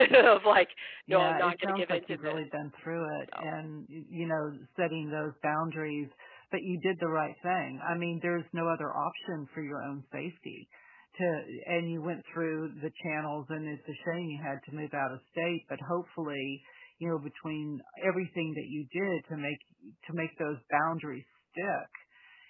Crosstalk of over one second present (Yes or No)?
Yes